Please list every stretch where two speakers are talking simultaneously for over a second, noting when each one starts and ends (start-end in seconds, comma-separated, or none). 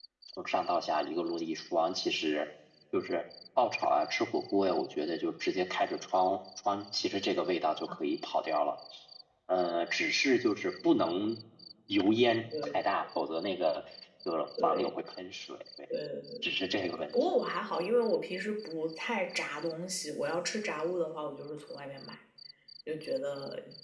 none